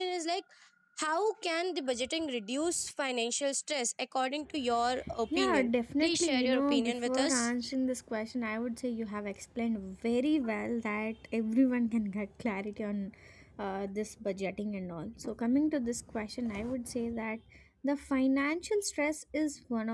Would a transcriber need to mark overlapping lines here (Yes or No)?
Yes